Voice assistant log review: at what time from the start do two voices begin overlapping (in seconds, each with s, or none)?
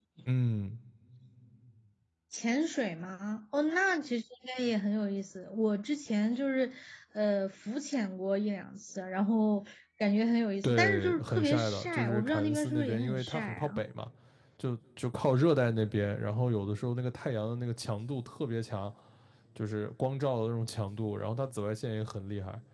10.6 s